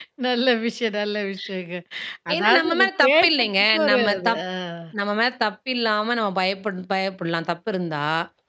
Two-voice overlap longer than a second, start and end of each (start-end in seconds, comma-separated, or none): 2.3-4.4